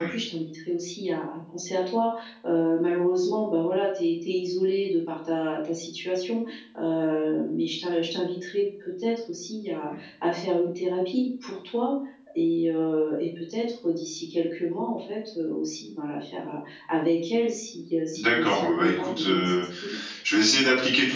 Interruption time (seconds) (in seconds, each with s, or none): 18.1 s